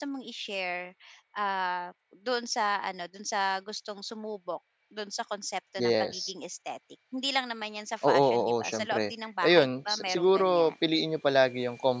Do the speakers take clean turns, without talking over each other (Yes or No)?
No